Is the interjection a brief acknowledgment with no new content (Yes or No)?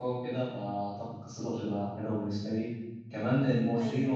Yes